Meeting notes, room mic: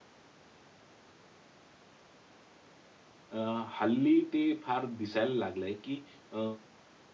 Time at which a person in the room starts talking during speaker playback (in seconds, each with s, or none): 3.4 s